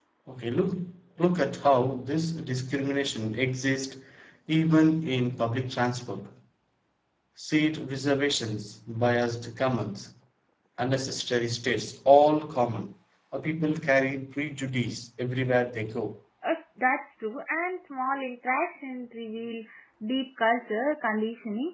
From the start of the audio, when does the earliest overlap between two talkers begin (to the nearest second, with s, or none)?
none